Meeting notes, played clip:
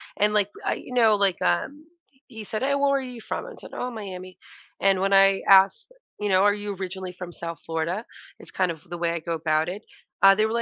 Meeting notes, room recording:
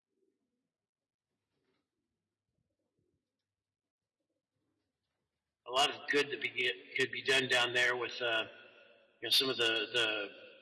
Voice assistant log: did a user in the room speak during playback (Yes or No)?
Yes